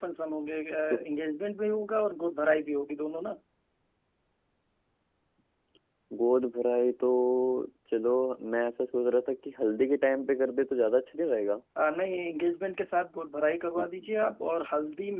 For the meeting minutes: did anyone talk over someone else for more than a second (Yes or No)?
No